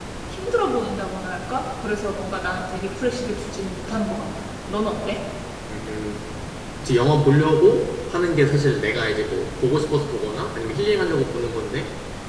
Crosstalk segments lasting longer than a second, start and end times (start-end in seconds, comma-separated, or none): none